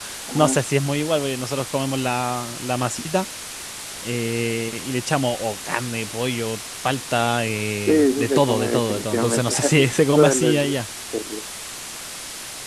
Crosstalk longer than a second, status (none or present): present